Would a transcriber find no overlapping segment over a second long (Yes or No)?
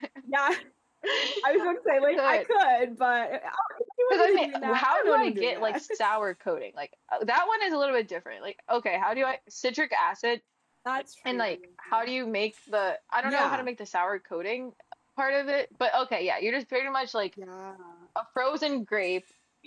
No